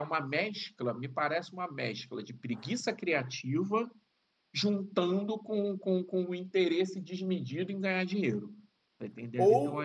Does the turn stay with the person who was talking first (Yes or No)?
No